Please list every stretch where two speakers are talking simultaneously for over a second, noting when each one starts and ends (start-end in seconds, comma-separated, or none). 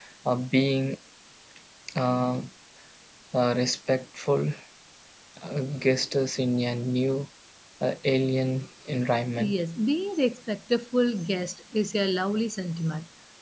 none